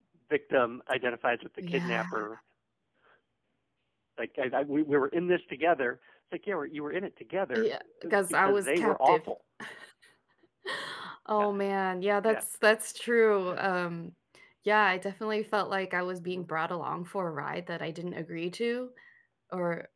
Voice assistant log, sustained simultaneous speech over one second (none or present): present